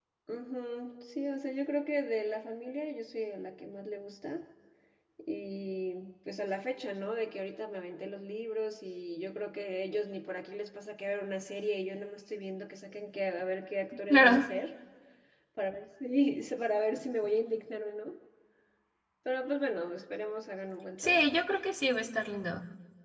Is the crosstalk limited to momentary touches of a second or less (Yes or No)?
Yes